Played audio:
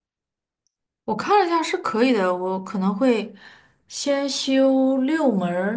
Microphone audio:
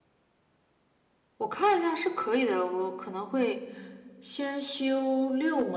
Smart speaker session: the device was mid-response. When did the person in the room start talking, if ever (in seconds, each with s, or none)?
none